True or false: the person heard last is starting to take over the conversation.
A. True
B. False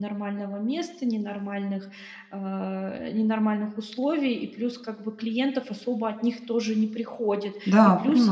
B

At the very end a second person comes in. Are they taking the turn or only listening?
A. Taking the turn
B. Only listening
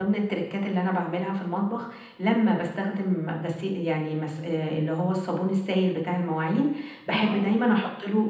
B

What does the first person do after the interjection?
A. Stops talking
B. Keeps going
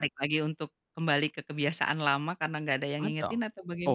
A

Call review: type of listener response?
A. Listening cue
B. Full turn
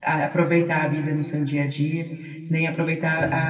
A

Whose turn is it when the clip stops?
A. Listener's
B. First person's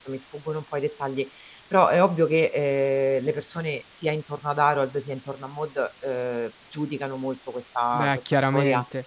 A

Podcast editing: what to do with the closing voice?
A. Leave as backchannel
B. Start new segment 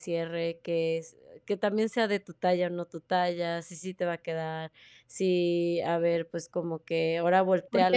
B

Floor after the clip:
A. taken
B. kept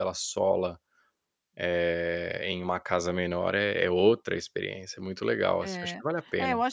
A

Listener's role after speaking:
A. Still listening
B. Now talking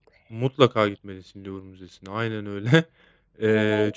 A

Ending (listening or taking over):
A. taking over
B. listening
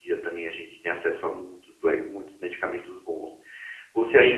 B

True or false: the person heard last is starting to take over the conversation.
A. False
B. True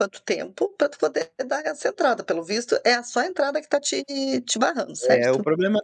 B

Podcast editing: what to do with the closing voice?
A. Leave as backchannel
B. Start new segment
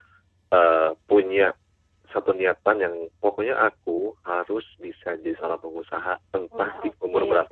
A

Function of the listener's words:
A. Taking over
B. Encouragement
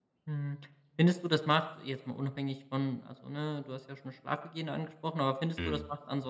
B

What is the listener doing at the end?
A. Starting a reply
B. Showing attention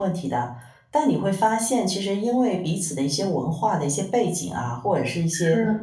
B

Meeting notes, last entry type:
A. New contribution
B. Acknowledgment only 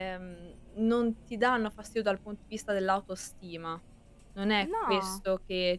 B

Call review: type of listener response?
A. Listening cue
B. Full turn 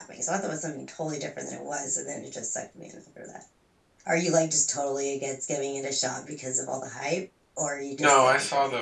B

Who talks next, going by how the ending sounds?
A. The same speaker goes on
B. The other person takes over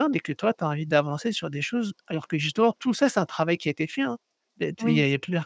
A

